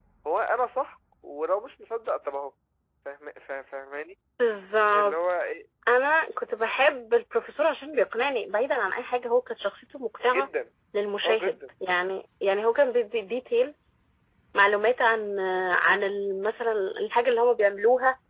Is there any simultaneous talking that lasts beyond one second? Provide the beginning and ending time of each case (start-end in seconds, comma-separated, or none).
none